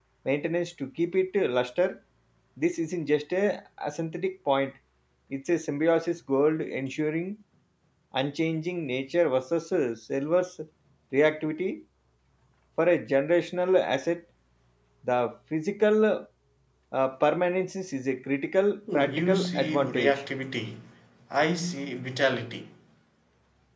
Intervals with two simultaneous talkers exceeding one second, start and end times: 18.9-20.2

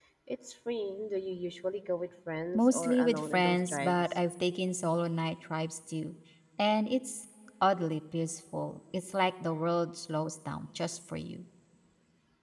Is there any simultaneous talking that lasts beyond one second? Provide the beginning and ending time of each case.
2.5-4.0

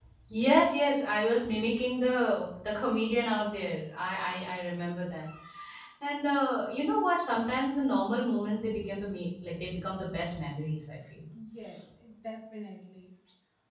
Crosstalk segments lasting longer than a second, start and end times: none

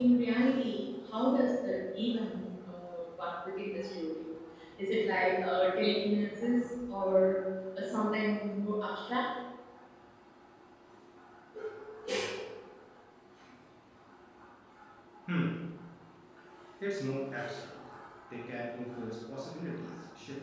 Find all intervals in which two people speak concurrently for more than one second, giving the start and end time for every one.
none

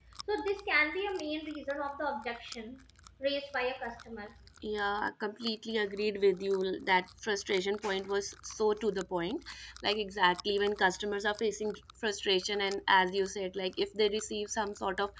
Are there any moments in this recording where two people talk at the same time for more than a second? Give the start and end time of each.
none

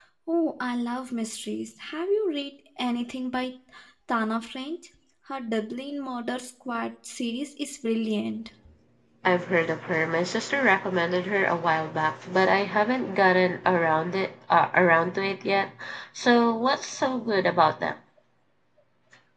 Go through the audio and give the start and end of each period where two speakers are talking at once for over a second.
none

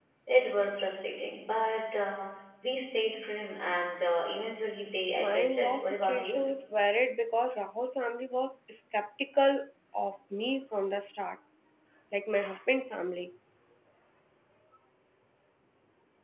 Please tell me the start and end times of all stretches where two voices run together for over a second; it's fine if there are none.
5.2-6.5

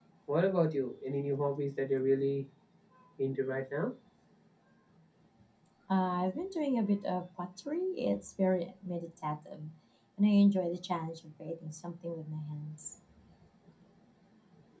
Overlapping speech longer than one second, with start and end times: none

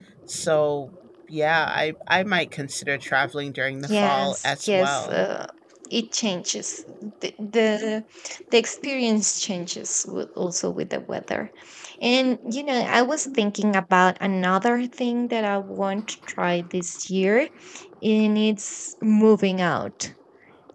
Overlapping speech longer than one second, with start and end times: 3.9-5.2

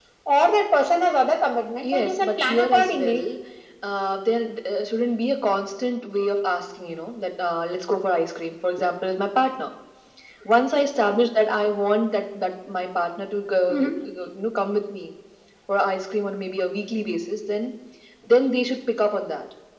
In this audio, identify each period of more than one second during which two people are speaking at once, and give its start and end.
1.8-3.2

